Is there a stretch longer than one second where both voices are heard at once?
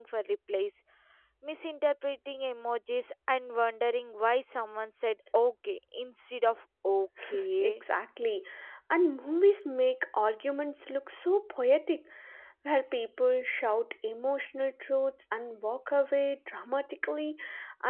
No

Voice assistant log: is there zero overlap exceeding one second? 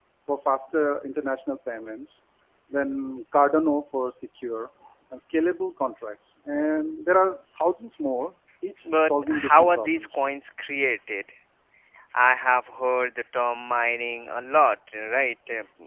No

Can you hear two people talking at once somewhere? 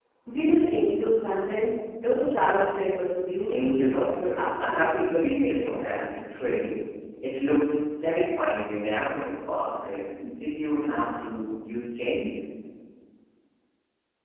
Yes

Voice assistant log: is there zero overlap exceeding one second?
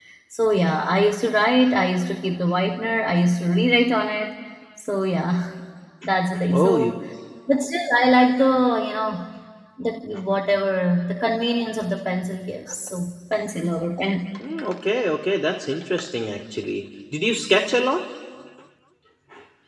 Yes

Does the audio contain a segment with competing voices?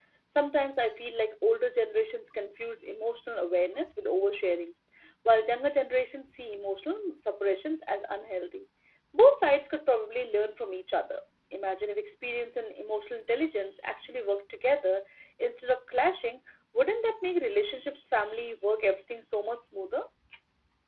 No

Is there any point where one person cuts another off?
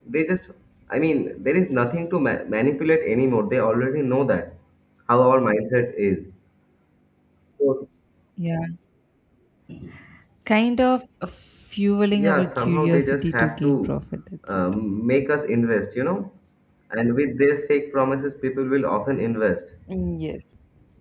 Yes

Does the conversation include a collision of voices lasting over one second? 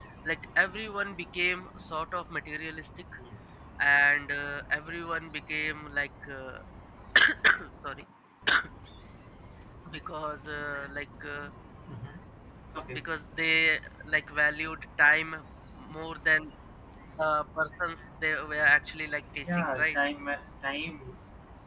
No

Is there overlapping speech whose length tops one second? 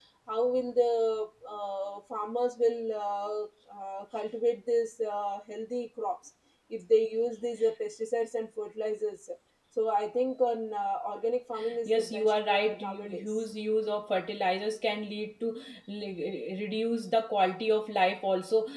Yes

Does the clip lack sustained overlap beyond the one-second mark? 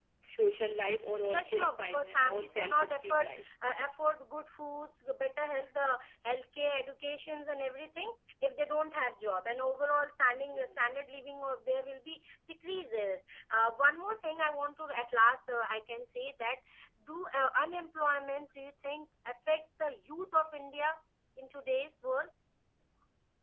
No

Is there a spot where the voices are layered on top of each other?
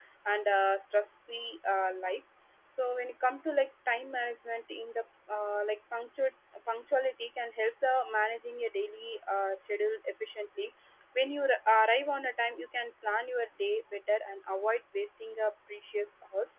No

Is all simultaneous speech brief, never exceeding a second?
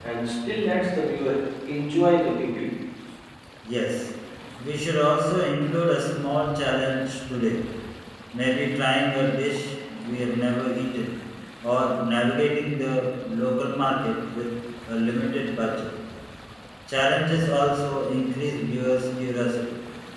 Yes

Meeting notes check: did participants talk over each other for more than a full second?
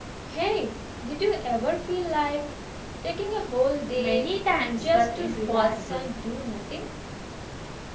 Yes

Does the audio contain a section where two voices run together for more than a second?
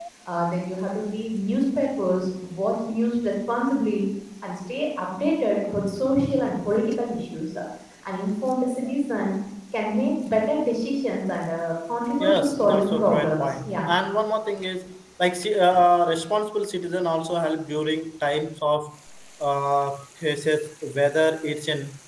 Yes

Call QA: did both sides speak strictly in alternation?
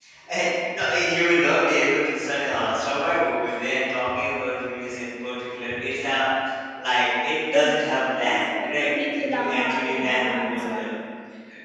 No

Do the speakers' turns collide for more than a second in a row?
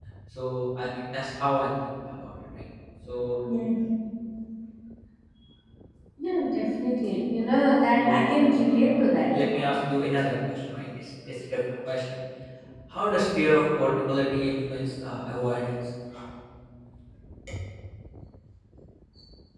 Yes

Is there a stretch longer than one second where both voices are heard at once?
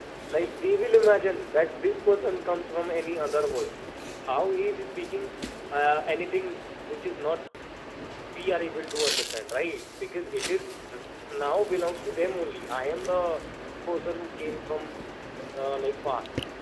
No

